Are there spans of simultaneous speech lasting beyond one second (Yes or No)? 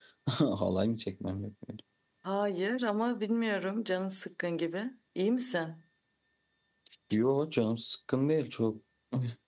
No